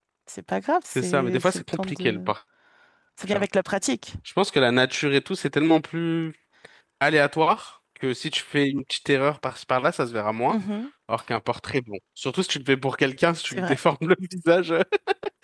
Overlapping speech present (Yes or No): Yes